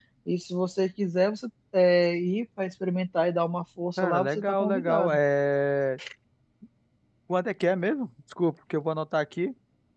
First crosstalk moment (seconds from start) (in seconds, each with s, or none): 4.0 s